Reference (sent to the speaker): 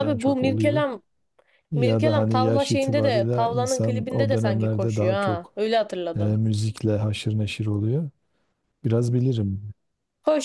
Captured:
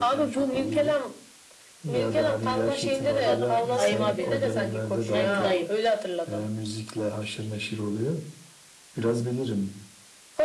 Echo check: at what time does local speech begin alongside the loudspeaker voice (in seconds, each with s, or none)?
3.3 s